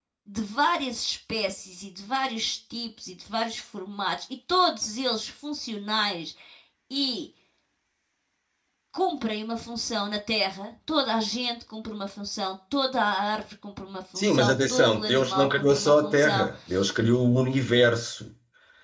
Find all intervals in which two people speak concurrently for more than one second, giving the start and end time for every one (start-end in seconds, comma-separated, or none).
14.2-16.5